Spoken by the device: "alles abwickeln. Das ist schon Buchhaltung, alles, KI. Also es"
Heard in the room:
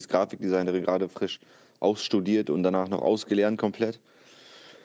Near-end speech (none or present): present